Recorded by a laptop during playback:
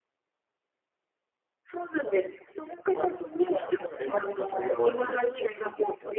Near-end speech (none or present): none